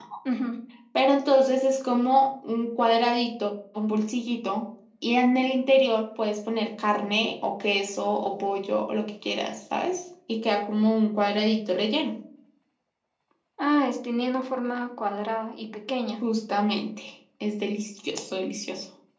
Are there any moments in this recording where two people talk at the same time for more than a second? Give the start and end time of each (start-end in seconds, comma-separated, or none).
none